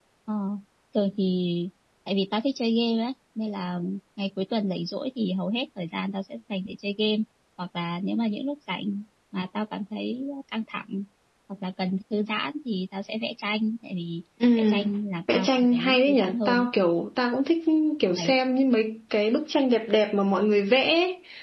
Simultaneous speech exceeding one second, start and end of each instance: 15.3-16.7

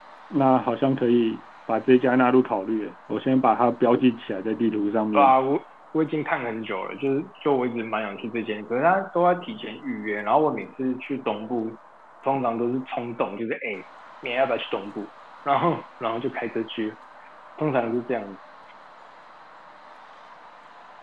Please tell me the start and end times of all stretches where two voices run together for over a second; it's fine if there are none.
none

